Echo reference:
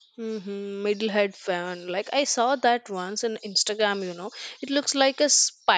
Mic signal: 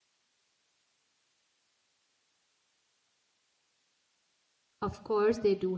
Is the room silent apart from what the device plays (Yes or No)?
No